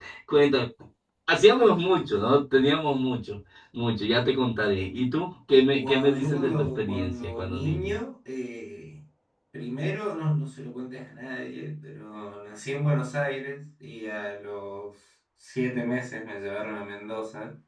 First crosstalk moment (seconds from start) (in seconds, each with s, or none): 5.8 s